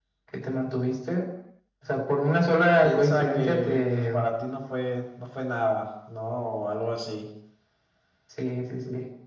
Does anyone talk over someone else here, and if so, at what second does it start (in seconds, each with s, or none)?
2.8 s